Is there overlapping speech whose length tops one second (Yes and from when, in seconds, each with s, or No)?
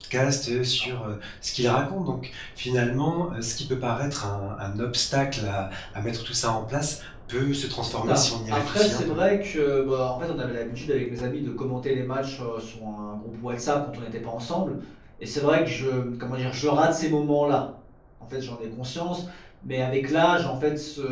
Yes, from 7.9 s